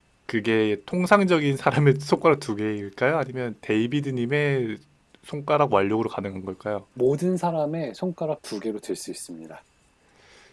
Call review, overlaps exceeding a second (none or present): none